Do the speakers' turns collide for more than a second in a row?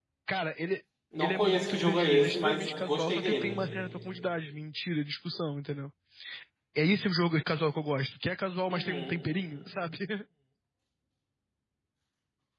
Yes, from 1.2 s

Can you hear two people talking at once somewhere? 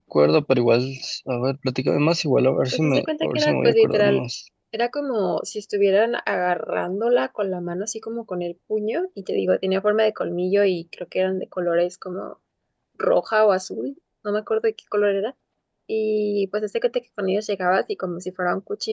Yes, from 2.7 s

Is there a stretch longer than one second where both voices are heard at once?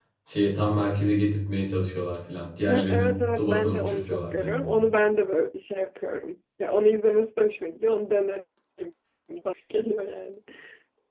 Yes, from 2.7 s

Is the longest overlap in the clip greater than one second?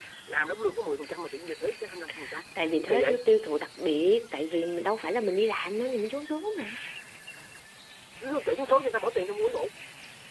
No

